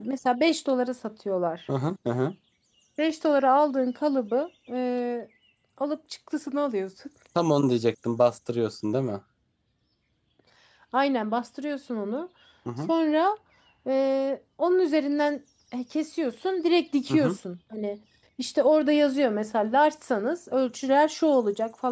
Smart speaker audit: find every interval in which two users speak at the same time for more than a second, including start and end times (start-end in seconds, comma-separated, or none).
none